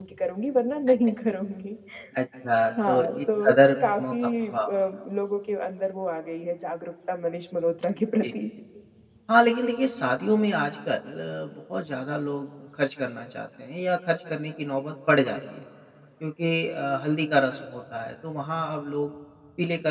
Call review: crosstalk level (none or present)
present